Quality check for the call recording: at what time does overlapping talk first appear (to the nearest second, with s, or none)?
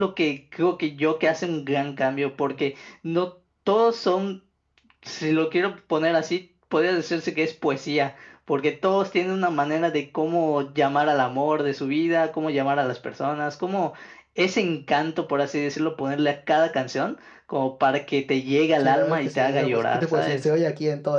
19 s